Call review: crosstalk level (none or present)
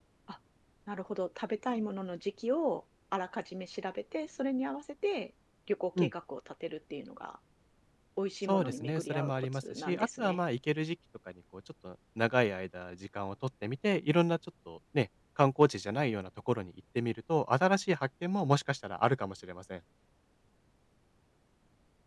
present